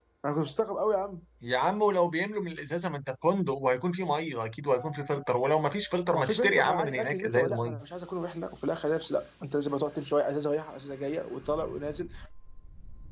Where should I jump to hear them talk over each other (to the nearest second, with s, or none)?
6 s